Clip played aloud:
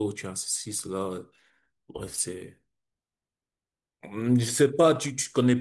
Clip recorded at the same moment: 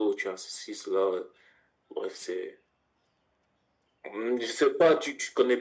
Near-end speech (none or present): none